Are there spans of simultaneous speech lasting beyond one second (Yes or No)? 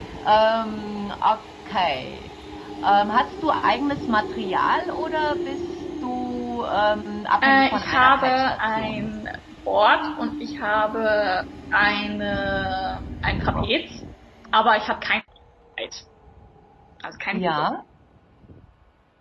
Yes